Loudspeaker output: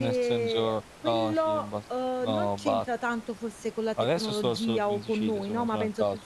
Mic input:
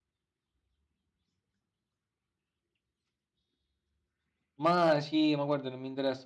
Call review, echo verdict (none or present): none